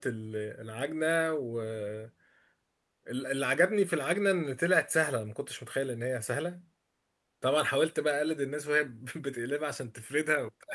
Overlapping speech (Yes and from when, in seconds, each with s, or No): No